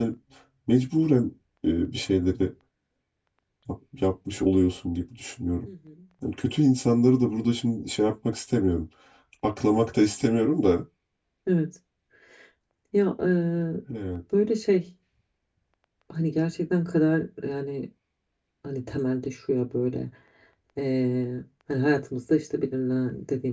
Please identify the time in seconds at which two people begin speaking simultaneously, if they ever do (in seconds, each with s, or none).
none